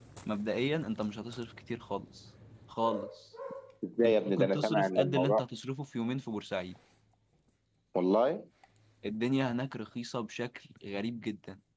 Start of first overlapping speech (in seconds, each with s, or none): 4.0 s